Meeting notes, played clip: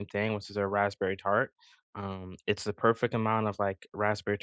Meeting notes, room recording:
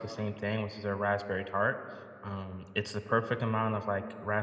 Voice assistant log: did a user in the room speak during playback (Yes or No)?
No